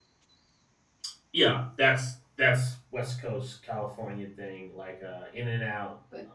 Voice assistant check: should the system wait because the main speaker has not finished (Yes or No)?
Yes